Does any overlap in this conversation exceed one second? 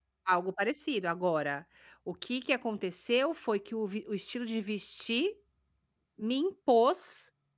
No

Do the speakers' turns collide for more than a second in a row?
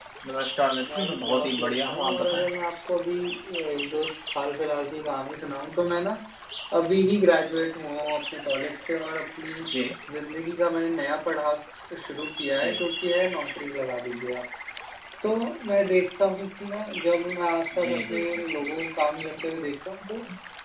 Yes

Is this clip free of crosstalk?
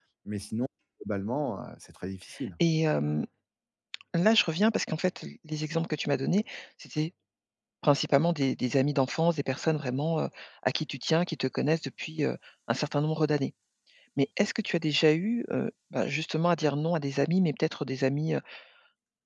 Yes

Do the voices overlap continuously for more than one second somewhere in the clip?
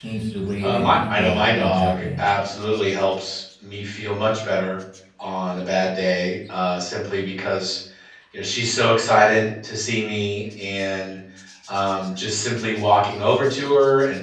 Yes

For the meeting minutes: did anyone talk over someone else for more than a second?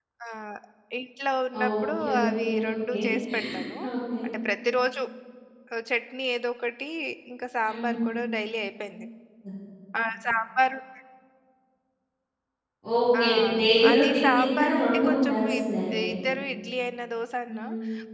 Yes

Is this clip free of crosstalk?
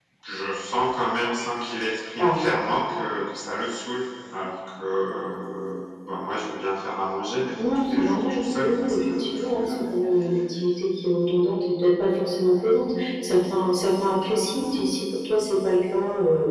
No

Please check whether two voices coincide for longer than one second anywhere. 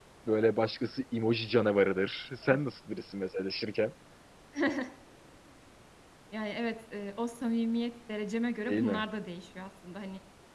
No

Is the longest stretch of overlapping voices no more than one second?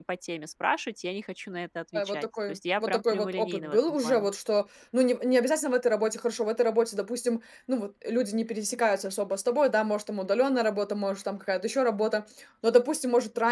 No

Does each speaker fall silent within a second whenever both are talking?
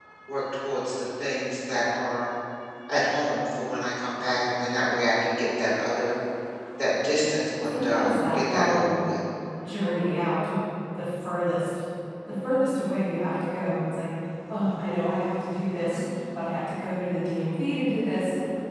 No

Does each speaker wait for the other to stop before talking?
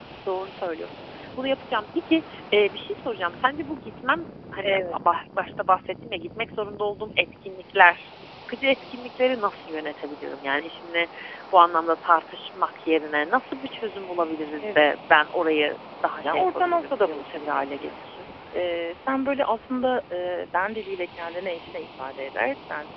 No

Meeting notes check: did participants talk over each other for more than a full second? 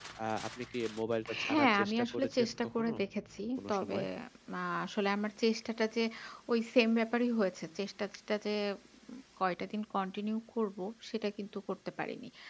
Yes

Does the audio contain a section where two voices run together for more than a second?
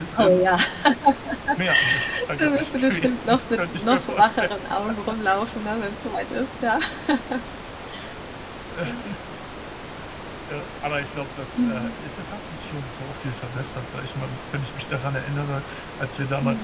Yes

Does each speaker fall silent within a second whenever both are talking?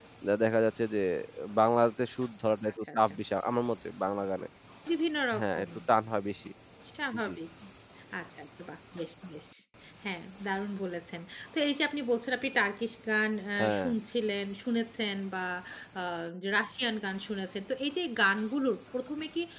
Yes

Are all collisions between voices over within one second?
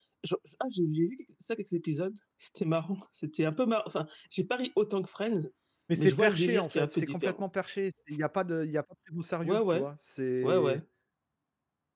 No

